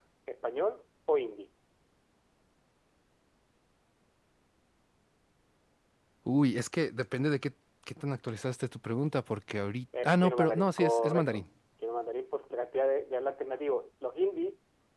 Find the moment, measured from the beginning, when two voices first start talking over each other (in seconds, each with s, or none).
9.9 s